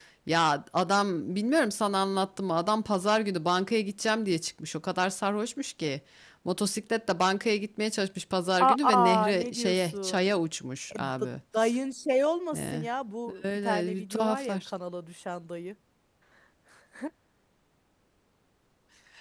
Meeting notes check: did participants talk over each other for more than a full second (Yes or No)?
Yes